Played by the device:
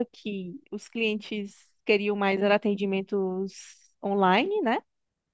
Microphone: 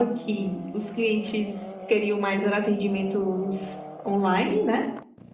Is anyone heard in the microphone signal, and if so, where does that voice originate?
echo only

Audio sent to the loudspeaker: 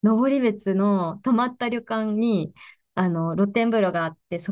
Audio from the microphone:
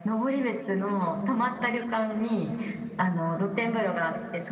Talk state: echo only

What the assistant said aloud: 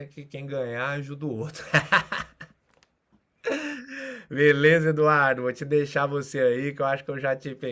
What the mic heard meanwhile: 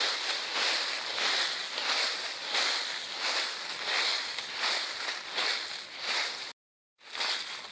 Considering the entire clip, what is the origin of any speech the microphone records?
neither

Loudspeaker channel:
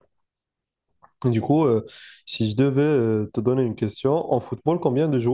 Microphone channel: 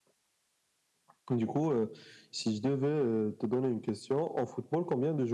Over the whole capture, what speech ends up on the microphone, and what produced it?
echo only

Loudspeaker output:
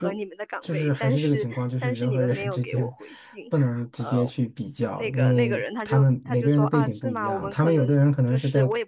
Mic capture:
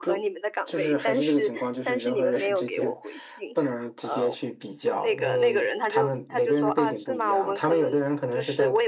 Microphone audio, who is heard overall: echo only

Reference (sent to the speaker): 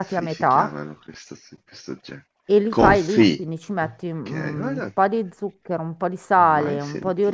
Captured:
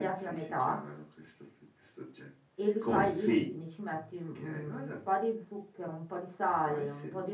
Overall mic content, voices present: echo only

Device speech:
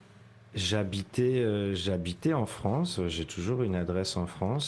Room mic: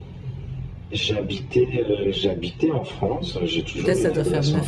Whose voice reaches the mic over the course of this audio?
both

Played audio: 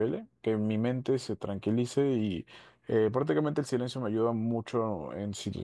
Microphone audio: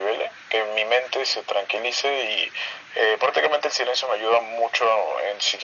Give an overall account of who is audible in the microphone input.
echo only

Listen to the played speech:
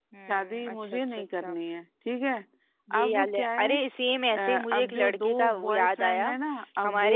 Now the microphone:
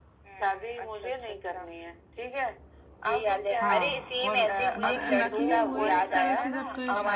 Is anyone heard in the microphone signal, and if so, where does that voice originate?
both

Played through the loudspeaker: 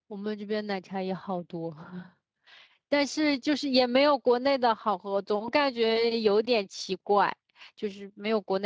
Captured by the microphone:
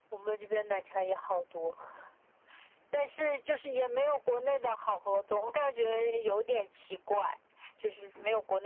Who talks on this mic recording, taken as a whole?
echo only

